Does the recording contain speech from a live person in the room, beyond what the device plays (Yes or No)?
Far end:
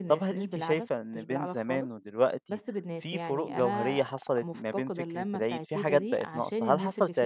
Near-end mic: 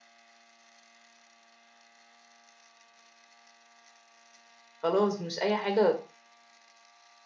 Yes